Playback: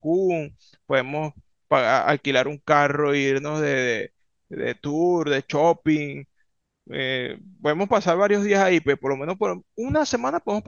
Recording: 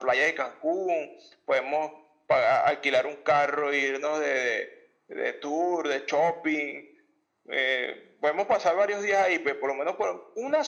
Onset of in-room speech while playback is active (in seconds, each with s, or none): none